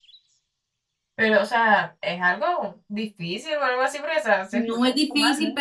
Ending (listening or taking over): taking over